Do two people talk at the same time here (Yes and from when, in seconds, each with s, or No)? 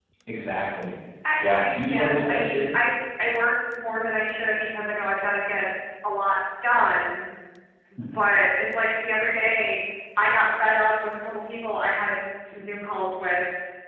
Yes, from 1.4 s